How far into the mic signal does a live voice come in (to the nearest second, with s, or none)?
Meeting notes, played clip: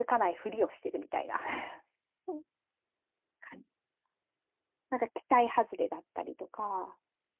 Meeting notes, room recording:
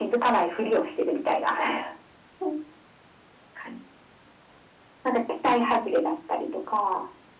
none